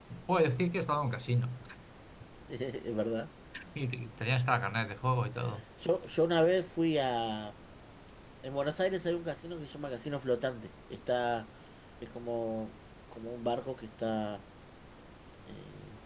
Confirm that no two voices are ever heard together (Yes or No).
Yes